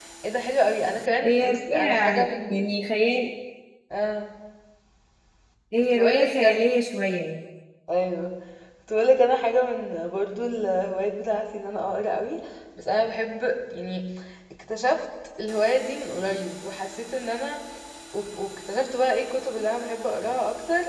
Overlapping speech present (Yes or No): Yes